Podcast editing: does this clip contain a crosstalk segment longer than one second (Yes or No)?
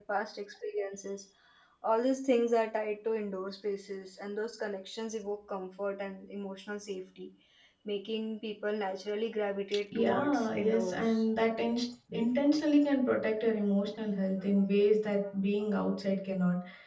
Yes